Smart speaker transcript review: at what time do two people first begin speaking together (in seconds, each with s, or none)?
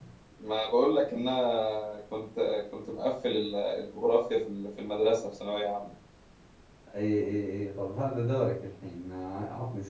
none